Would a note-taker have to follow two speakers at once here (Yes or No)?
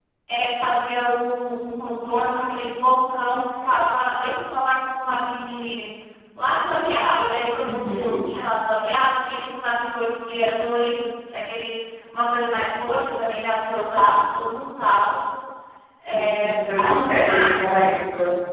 Yes